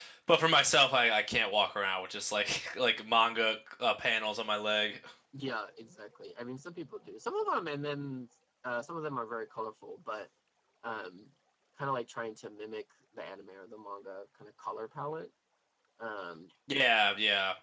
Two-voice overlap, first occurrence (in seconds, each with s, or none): none